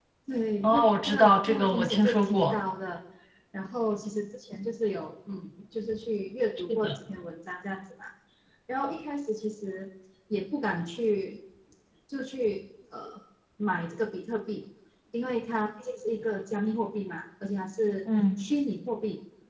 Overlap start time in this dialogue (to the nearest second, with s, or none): 1 s